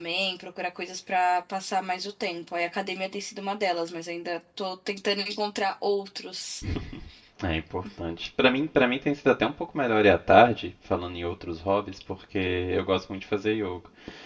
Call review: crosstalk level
none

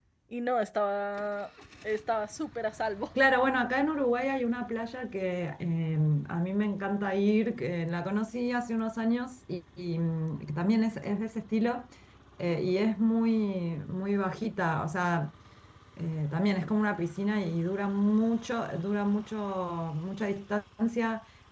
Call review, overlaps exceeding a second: none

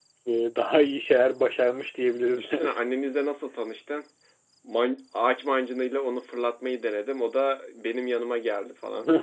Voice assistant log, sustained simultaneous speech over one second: none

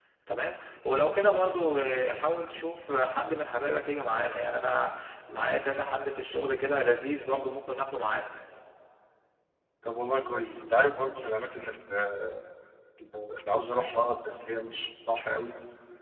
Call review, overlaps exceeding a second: none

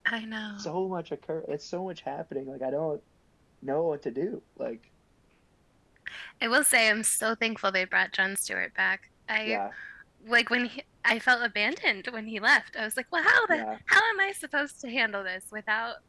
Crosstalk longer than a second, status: none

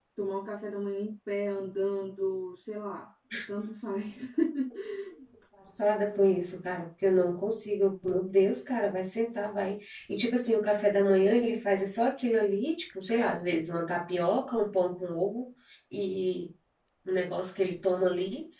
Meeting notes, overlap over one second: none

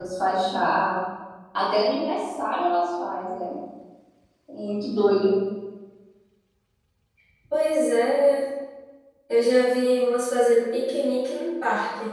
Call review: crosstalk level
none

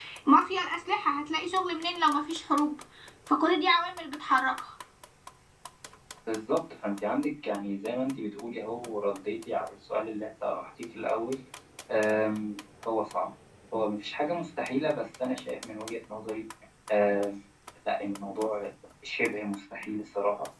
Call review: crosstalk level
none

